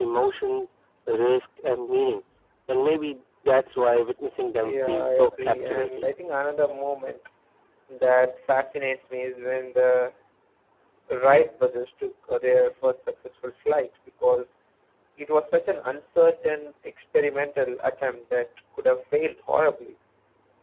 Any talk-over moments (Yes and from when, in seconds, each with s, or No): Yes, from 4.6 s